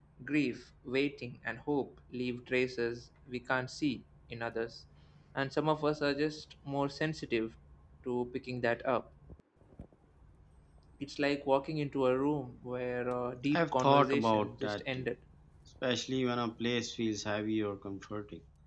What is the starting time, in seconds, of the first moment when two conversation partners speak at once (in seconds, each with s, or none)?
13.5 s